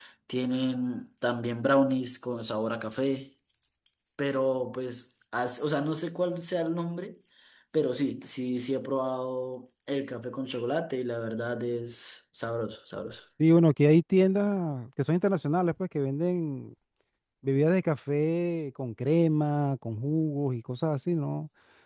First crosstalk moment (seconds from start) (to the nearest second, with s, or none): none